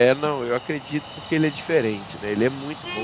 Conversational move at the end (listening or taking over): taking over